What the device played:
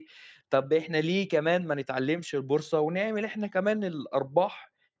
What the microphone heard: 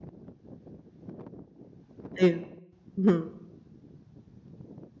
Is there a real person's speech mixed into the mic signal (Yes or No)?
Yes